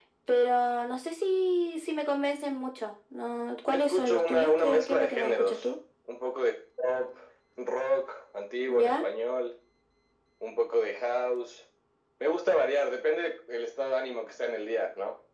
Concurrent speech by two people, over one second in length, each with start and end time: 3.7-5.7

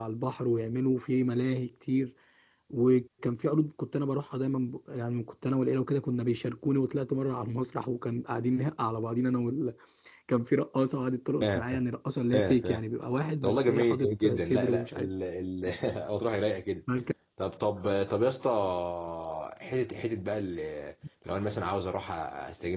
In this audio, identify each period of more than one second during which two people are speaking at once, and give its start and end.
13.4-15.1

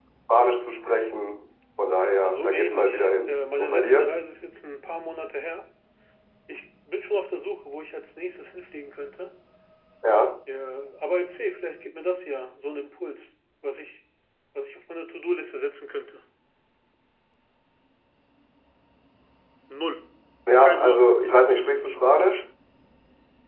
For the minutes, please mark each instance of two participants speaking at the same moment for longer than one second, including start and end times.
2.2-4.2

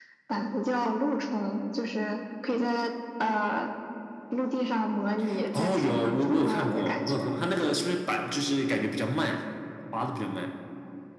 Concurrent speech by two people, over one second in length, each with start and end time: 5.6-7.2

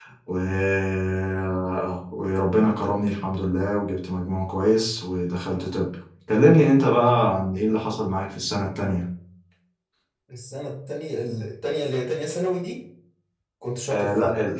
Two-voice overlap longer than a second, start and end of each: none

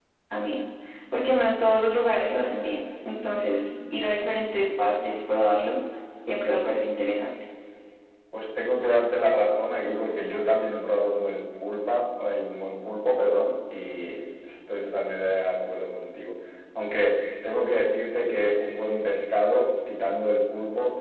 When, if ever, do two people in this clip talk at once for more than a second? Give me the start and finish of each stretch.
none

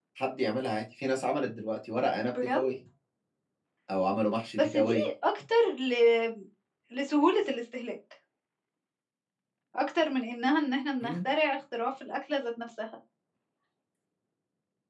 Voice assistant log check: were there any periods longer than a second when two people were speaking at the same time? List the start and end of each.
none

